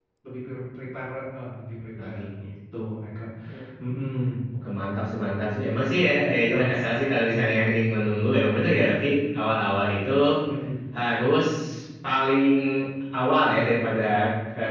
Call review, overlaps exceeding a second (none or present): none